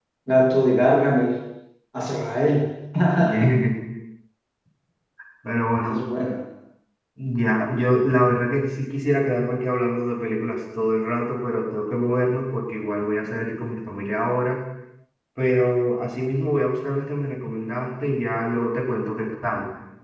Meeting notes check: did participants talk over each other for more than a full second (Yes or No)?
No